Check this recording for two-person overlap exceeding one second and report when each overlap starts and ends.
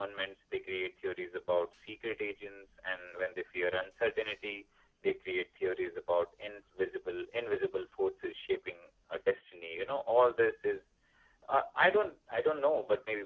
none

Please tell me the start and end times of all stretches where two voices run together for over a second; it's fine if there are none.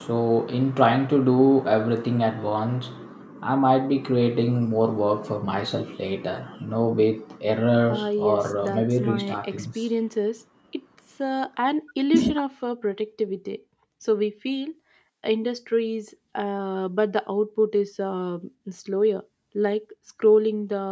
7.9-9.7

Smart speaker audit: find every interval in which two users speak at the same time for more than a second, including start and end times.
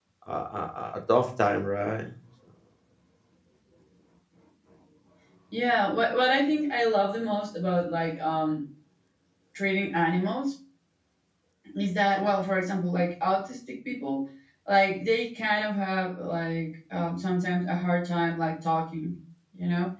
none

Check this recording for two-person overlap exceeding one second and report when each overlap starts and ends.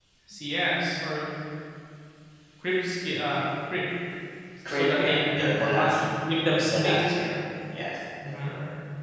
4.7-6.0

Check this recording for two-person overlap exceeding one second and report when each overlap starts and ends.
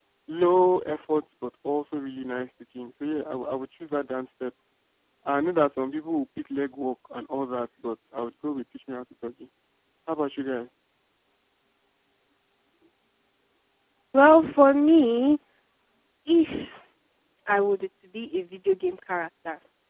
none

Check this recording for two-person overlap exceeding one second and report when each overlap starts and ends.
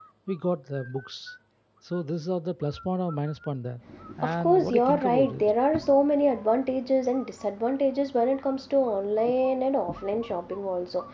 4.2-5.4

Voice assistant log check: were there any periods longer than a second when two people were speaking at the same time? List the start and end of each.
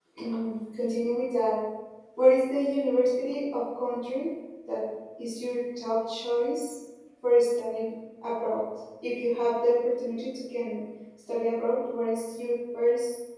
none

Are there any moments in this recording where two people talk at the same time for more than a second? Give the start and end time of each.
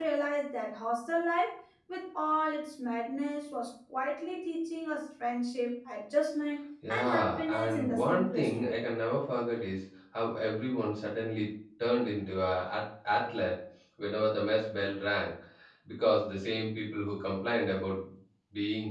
6.9-8.8

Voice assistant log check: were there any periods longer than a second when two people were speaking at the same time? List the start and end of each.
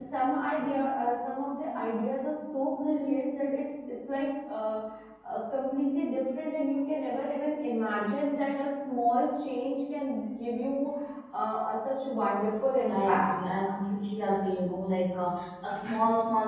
none

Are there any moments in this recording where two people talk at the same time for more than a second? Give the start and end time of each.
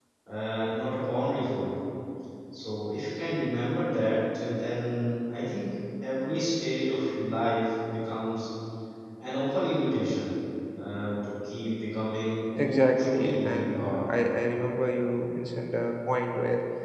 12.7-14.0

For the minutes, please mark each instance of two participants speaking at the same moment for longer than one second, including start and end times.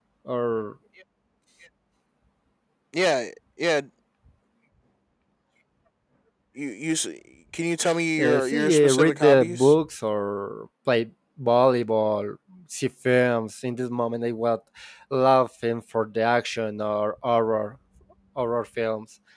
8.2-9.7

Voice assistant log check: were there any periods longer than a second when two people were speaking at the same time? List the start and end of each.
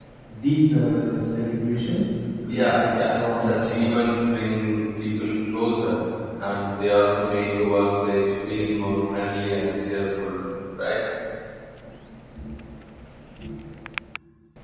2.5-3.9

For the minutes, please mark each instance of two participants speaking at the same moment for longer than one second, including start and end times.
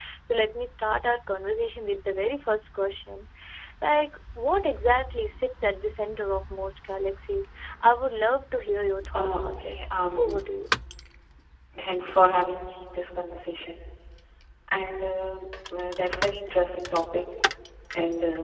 9.1-10.4

